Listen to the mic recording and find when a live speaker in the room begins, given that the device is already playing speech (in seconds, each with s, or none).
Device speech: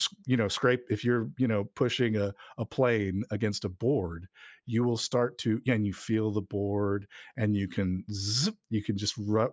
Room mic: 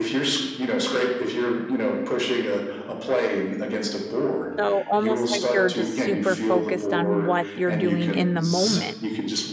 4.6 s